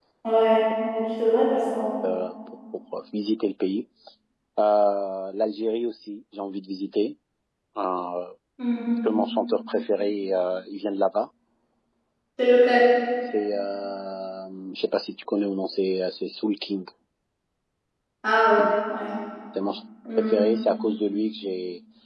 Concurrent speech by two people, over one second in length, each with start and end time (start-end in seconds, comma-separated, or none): none